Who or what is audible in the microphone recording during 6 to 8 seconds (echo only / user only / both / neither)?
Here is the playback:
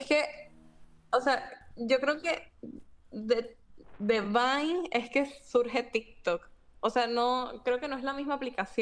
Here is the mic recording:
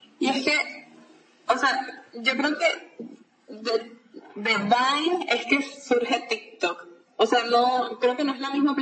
echo only